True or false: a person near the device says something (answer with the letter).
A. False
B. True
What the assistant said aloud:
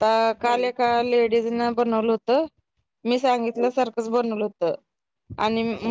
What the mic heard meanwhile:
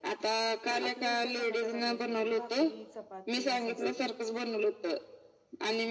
B